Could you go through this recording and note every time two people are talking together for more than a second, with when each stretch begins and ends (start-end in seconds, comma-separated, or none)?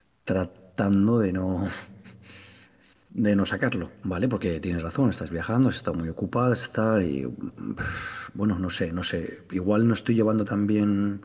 none